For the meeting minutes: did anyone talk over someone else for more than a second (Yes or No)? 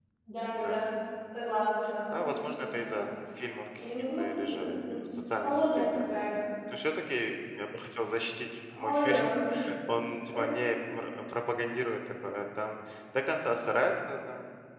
Yes